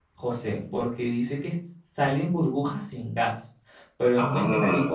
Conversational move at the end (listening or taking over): listening